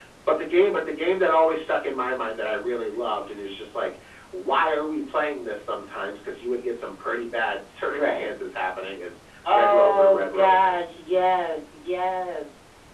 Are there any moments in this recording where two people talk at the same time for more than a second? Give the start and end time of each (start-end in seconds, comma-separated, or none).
9.5-10.7